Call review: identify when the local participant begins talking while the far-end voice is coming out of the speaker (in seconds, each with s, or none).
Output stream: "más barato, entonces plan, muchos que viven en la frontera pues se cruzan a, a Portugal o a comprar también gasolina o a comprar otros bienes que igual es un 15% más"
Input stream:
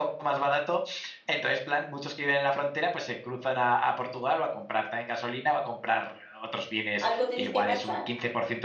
7.0 s